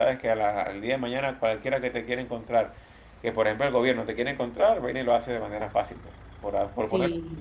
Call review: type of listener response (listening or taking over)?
taking over